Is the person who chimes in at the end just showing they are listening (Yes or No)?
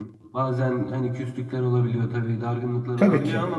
Yes